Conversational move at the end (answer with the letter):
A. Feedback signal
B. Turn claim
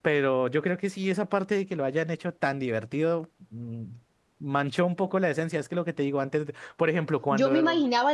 B